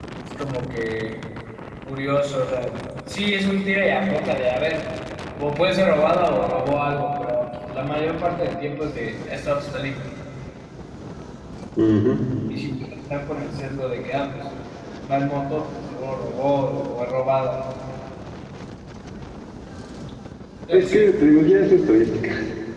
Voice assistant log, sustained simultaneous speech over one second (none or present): none